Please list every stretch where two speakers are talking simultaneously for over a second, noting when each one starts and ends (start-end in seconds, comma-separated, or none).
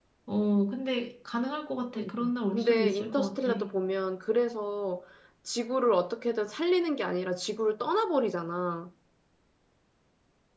2.0-3.5